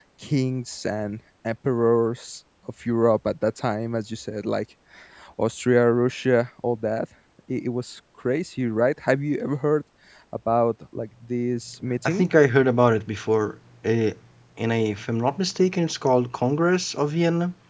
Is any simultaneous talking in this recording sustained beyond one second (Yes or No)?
No